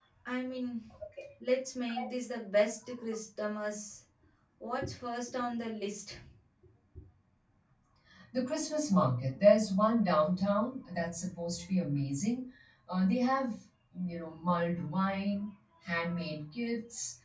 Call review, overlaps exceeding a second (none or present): none